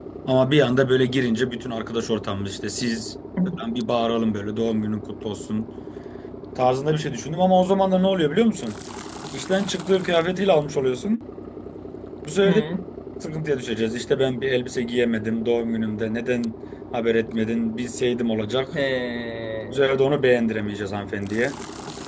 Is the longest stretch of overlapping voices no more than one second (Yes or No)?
Yes